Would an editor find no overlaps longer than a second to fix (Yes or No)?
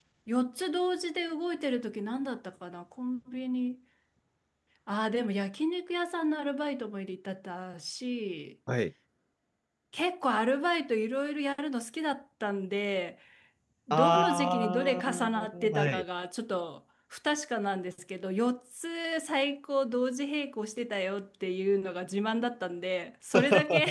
No